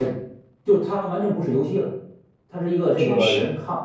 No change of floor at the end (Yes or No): Yes